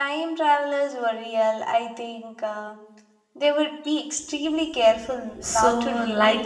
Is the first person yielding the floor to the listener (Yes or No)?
Yes